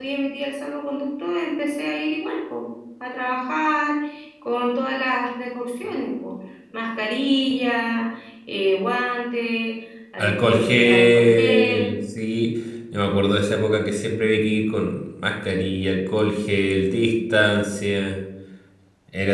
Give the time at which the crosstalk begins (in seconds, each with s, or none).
10.2 s